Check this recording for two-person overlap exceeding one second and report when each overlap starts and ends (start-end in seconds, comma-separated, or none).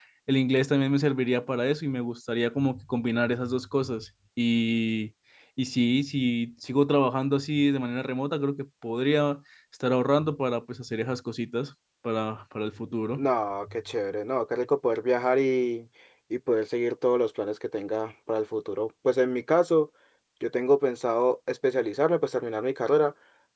none